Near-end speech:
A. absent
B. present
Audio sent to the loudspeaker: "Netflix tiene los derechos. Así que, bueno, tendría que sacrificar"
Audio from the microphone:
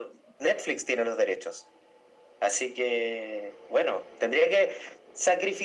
A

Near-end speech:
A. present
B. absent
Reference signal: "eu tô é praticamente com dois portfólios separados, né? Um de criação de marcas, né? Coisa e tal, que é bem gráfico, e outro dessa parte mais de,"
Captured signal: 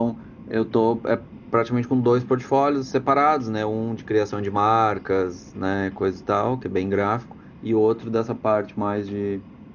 B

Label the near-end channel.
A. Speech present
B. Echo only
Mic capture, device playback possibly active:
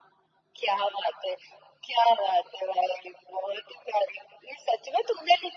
B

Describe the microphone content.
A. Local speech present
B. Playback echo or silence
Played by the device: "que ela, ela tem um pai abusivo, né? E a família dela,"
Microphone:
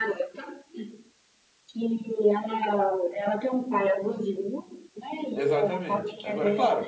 A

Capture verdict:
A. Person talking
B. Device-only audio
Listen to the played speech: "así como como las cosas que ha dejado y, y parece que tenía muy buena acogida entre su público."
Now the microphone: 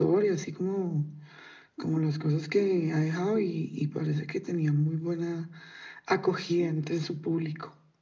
B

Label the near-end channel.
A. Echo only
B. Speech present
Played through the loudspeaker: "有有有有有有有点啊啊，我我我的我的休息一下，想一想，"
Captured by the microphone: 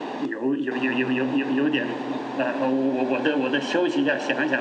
B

